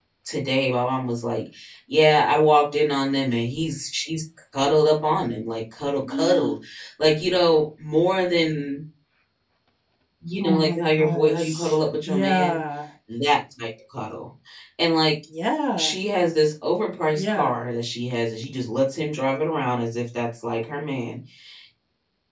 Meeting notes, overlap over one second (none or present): present